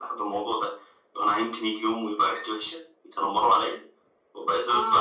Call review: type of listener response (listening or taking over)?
listening